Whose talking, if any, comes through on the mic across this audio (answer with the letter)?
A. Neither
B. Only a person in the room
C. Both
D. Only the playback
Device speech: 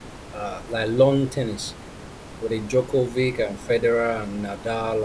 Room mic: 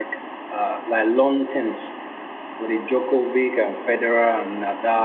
D